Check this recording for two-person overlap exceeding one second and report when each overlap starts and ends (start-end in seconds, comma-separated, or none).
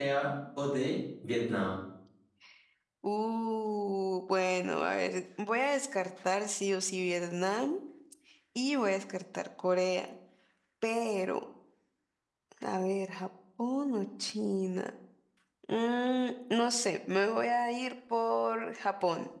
none